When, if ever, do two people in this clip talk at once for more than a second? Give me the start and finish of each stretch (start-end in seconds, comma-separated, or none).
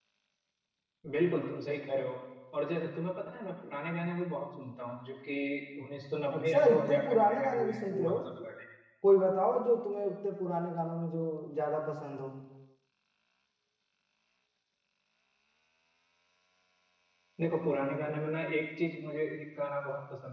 6.3-8.2